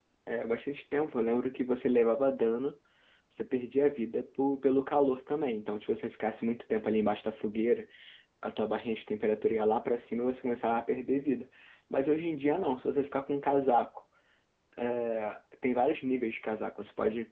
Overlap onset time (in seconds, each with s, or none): none